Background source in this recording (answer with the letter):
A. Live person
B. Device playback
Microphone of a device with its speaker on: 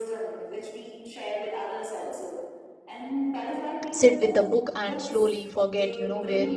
B